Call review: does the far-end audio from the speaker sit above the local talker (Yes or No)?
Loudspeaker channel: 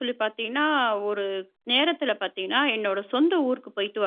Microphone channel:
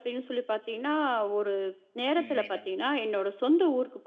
Yes